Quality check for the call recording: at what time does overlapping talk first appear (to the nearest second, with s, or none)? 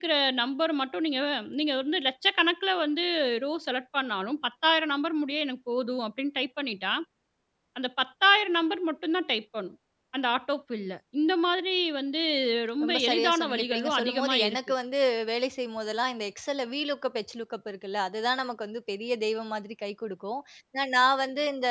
13 s